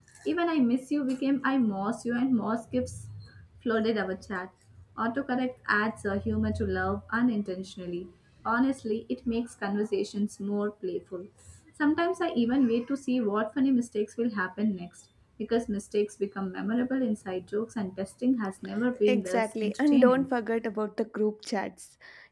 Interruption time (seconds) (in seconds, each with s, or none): 19.1 s